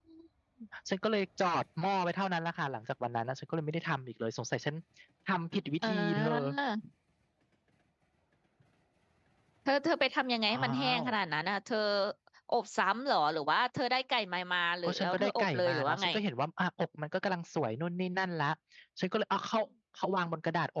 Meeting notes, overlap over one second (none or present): present